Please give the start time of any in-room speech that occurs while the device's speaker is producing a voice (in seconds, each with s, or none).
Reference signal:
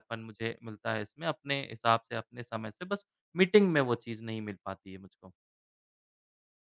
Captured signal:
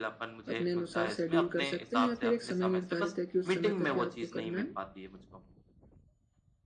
0.5 s